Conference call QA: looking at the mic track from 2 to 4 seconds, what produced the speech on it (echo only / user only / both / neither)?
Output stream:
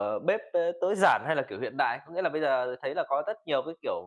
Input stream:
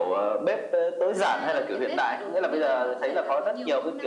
both